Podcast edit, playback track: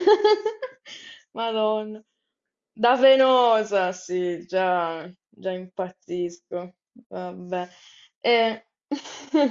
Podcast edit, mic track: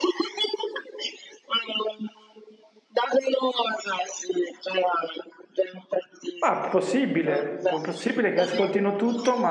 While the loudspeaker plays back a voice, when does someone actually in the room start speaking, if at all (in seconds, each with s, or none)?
6.4 s